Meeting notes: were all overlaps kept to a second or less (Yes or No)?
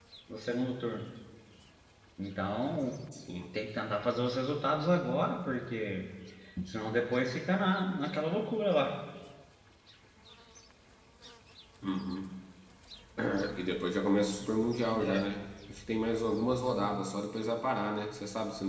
Yes